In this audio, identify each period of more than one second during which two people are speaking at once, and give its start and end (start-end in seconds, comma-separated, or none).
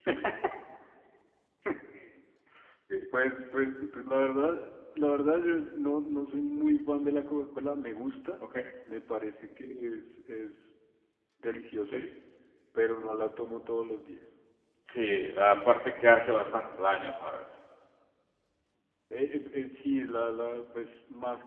none